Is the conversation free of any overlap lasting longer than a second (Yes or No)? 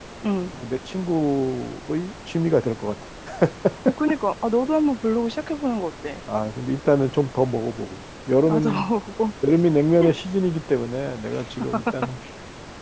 Yes